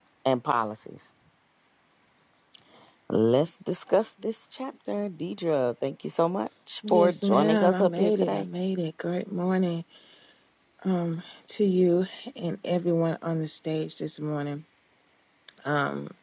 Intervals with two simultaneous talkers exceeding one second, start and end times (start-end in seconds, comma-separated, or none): 6.9-8.4